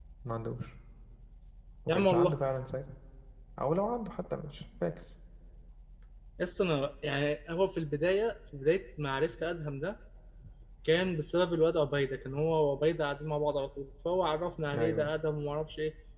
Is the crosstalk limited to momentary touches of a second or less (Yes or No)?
Yes